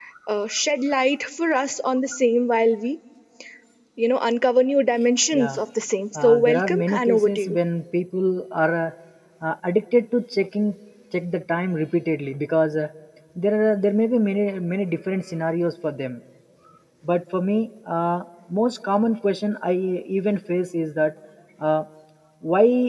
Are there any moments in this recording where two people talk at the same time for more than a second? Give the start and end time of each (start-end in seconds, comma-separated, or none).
6.2-7.6